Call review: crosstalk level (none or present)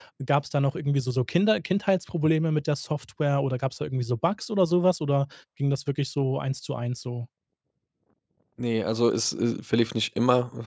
none